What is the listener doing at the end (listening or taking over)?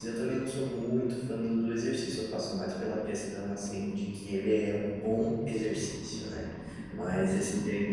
listening